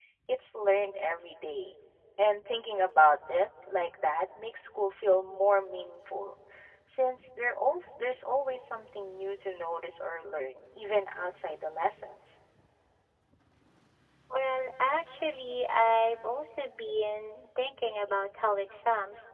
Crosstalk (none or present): none